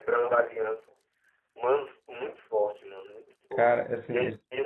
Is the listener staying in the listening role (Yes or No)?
Yes